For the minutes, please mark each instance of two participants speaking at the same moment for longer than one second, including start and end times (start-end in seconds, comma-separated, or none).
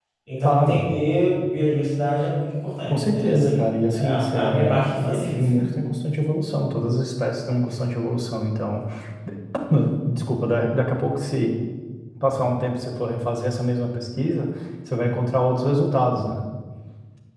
2.9-5.3